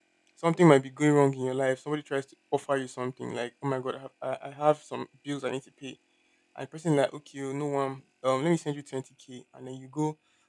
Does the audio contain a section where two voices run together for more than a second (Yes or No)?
No